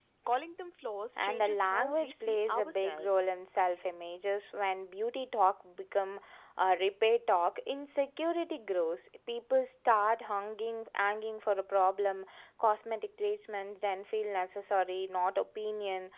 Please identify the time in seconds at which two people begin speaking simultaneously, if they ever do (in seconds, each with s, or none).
1.2 s